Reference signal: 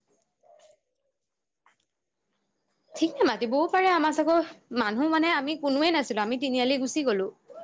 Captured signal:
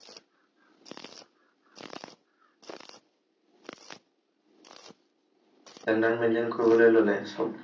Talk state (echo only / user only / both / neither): user only